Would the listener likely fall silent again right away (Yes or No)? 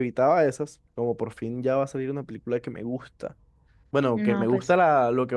Yes